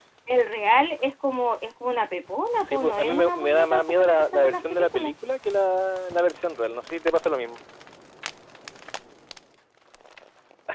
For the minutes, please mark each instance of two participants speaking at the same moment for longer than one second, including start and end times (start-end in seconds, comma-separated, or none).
2.6-5.1